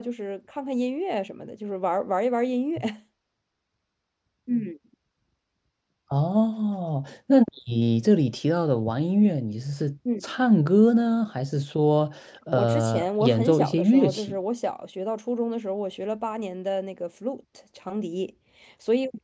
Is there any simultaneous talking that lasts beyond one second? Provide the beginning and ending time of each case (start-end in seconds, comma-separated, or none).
12.5-14.4